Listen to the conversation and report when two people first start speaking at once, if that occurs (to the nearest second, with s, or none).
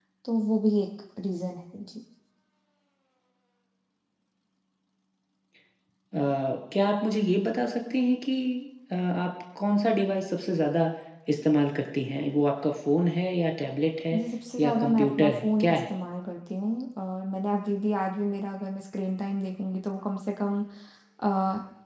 15 s